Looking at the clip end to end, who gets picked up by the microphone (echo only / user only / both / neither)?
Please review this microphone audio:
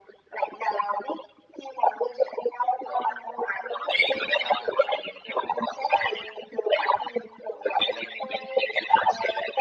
echo only